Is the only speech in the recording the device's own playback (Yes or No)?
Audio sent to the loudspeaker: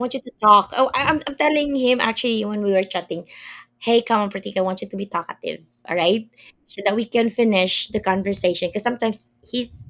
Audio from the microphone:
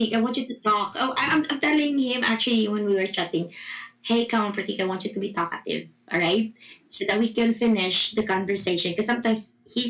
Yes